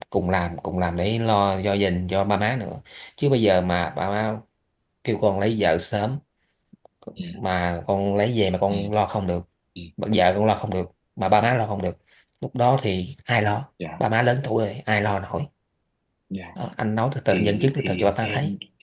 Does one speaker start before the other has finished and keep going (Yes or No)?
Yes